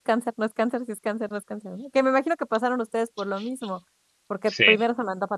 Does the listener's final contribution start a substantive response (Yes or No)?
No